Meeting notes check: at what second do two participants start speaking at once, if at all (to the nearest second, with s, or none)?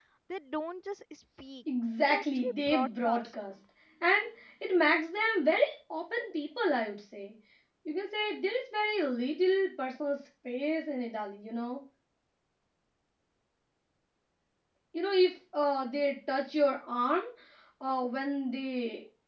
2 s